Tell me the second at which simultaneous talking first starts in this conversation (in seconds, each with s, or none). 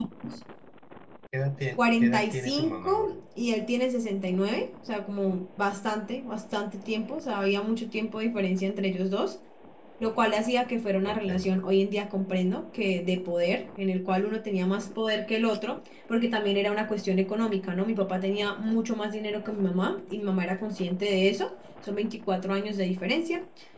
1.8 s